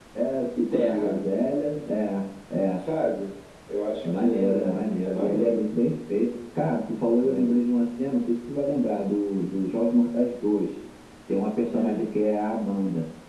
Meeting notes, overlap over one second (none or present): present